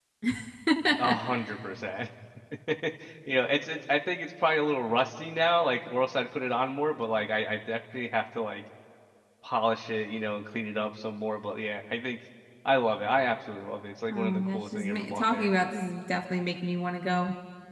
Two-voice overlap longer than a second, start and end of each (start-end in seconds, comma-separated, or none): 14.1-15.5